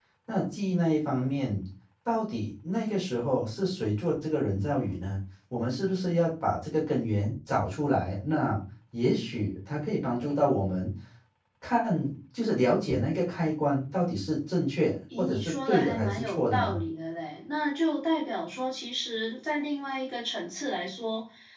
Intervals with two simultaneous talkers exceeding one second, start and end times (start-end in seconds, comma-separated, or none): 15.2-16.8